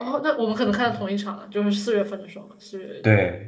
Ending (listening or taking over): taking over